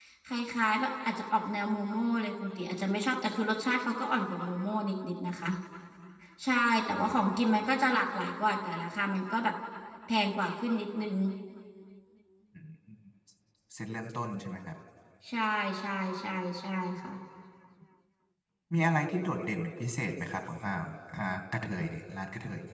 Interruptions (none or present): none